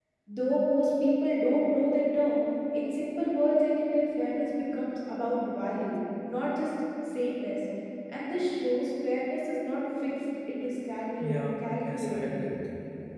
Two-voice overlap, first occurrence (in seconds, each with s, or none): 11.2 s